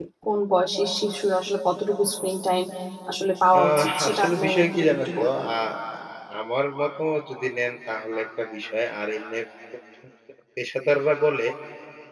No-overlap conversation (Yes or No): No